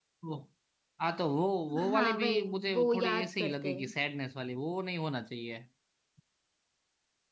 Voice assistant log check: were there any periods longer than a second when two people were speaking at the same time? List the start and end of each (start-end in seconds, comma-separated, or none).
1.9-3.9